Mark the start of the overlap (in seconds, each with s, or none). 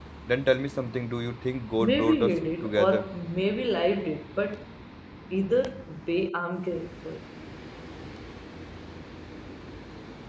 1.8 s